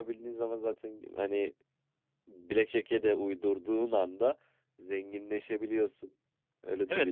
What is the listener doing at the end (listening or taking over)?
taking over